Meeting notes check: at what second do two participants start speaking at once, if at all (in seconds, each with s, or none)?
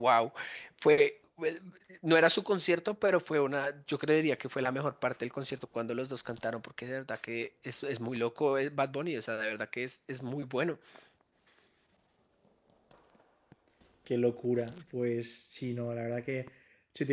none